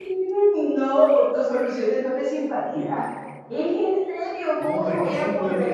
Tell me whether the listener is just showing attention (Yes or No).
No